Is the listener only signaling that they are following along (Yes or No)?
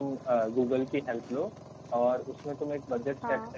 Yes